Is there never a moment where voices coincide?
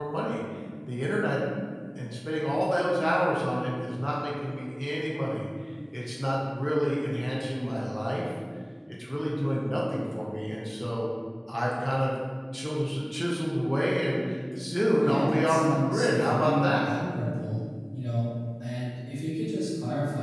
No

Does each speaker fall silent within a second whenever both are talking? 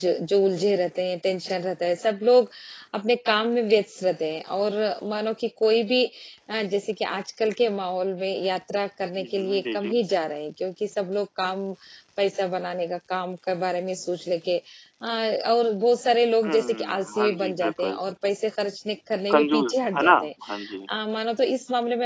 No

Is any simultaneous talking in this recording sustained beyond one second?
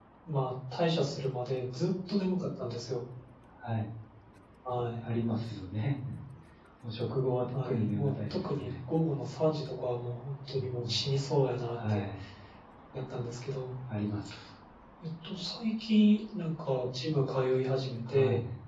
Yes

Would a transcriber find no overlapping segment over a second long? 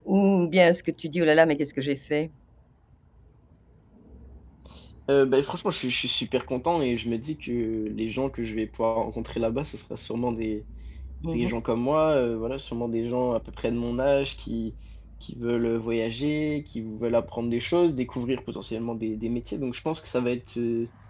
Yes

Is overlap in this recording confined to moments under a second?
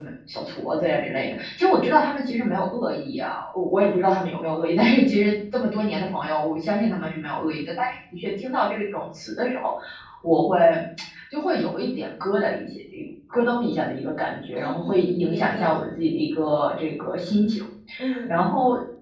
No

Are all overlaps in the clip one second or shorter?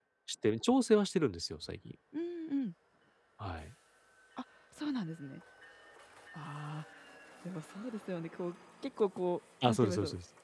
Yes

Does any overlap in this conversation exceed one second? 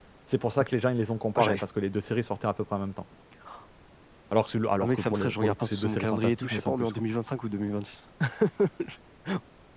Yes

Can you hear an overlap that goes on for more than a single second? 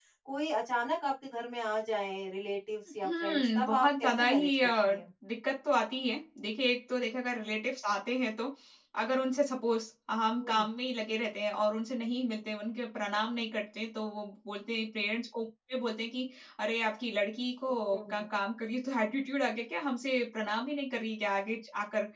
Yes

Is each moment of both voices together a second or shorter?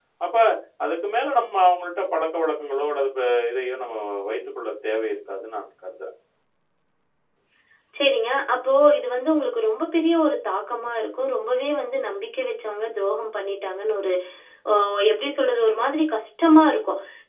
Yes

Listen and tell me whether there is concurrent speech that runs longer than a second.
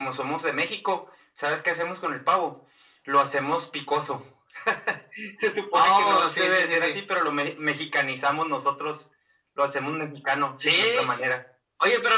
Yes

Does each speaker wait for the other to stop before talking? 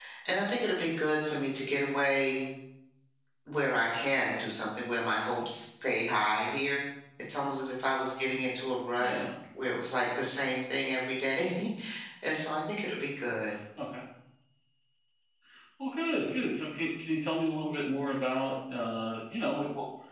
Yes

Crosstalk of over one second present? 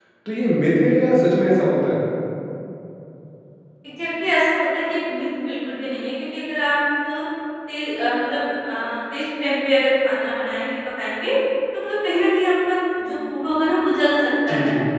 No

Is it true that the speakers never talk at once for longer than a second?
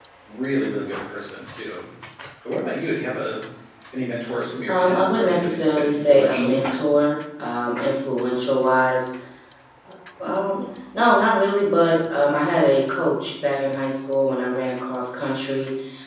No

